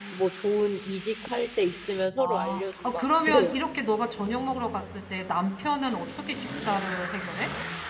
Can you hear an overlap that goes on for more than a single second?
Yes, from 2.2 s

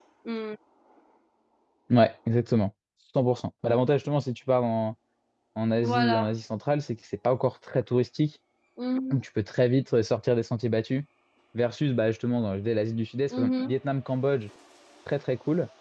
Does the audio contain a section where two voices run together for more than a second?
No

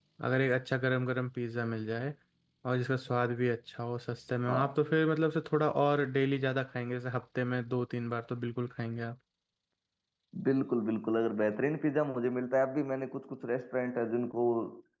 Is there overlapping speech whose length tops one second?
No

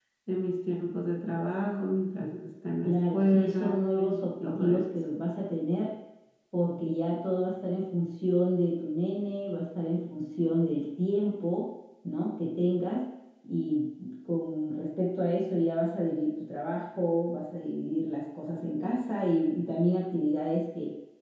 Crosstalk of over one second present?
Yes, from 2.8 s

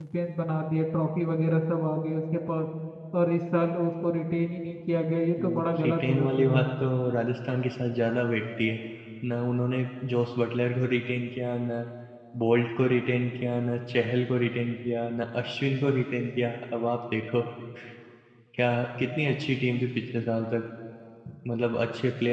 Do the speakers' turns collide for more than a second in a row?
Yes, from 5.4 s

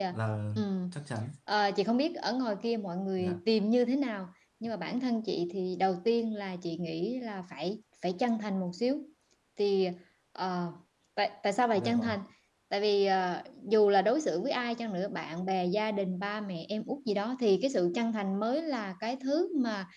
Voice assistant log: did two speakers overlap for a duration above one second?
No

